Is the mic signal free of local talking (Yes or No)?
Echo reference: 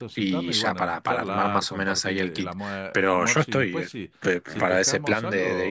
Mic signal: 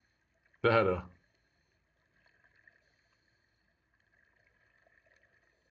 No